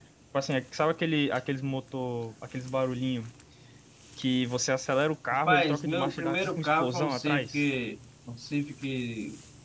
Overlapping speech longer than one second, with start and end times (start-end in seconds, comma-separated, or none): 5.3-7.6